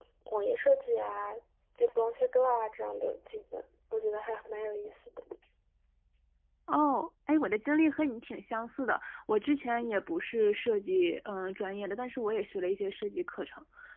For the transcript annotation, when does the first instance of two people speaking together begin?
none

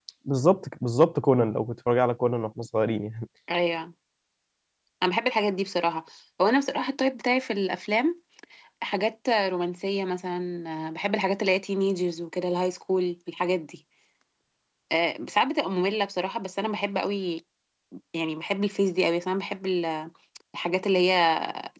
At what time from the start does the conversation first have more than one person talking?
none

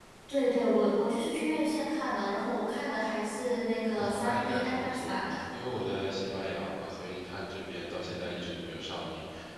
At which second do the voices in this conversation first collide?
3.9 s

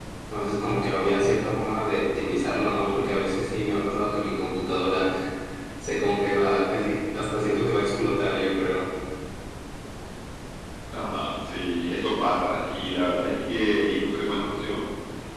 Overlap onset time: none

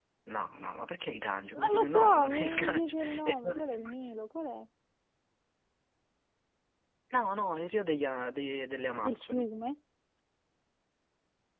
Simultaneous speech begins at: 1.6 s

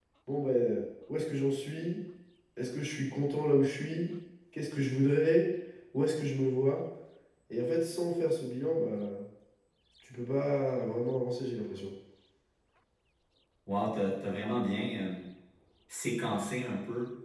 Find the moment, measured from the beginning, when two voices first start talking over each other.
none

